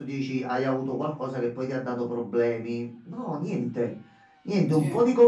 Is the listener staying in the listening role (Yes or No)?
Yes